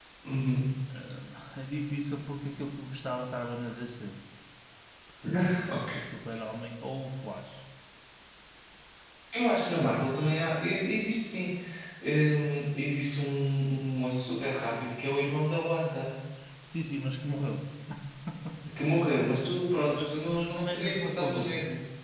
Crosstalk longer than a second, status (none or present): present